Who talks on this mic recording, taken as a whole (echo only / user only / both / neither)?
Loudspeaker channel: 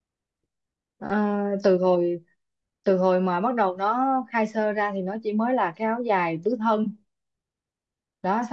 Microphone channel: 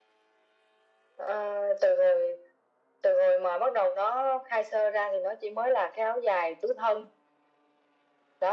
echo only